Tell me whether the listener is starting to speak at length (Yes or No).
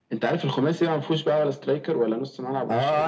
Yes